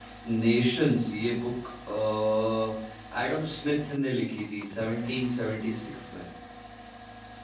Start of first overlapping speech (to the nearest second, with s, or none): none